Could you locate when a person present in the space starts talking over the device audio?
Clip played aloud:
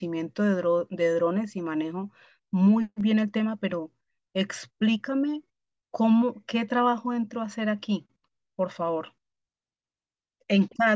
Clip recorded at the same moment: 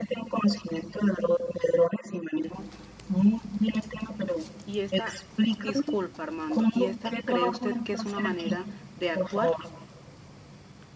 5 s

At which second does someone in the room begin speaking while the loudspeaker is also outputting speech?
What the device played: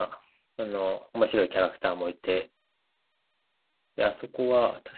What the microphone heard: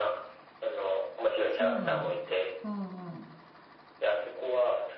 1 s

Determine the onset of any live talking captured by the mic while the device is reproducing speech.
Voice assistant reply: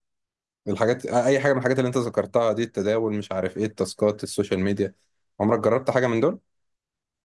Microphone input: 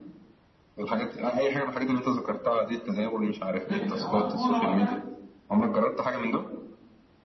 4 s

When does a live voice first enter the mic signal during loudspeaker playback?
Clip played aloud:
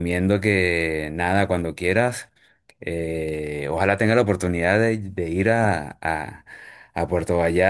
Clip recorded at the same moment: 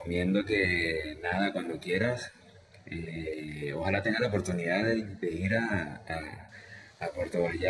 none

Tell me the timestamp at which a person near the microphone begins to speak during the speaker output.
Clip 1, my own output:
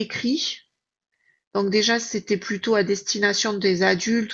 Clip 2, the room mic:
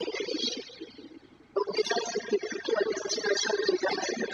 none

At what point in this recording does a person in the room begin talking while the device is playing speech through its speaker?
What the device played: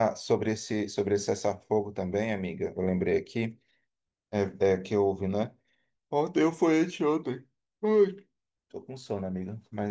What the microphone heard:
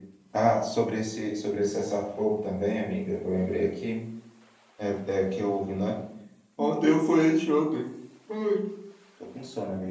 7 s

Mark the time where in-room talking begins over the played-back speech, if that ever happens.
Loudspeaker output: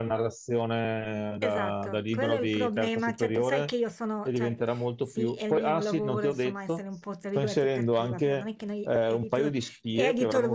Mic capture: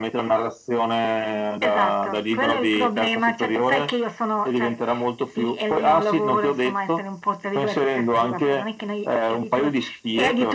none

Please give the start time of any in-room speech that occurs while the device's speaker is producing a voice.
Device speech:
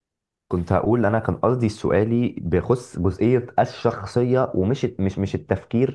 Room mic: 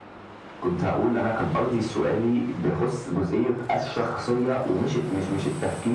none

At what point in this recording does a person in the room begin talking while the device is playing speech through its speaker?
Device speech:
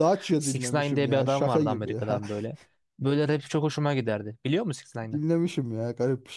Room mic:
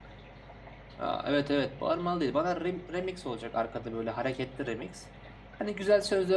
1 s

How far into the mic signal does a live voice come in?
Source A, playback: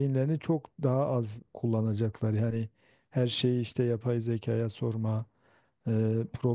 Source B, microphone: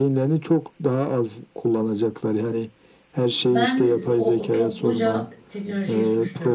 4 s

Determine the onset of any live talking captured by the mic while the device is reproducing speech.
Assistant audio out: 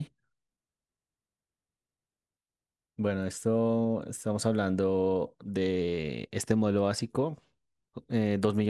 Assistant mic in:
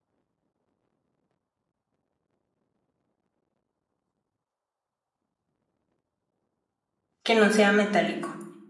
7 s

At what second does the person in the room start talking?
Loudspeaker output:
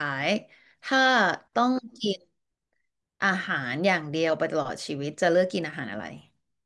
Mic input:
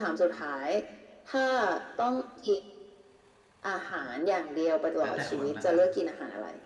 5 s

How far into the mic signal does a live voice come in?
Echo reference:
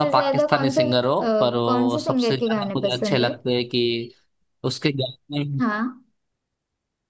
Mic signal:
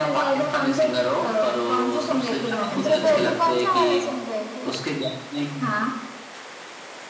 3 s

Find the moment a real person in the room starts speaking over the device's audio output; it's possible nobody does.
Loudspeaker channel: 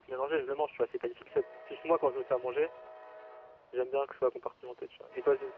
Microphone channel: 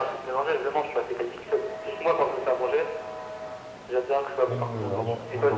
4 s

